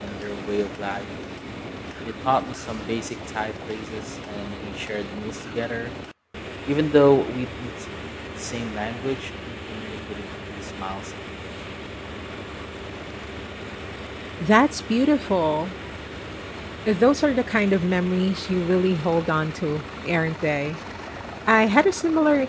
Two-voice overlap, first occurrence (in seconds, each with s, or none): none